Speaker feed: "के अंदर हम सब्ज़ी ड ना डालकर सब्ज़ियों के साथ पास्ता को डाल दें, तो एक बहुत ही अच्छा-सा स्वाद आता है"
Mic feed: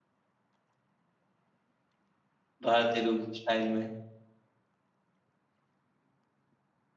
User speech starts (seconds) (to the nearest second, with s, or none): 3 s